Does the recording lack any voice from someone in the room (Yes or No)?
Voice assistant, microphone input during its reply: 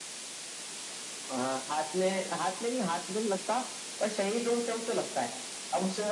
Yes